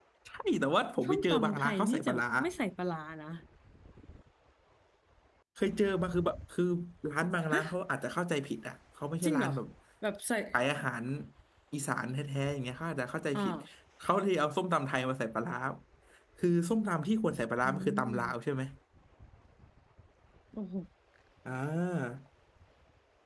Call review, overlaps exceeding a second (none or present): present